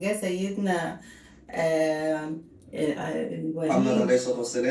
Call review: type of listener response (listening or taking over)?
taking over